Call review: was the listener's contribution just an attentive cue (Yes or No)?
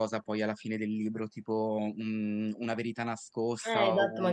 No